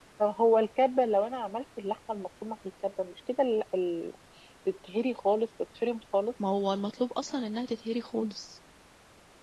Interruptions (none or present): none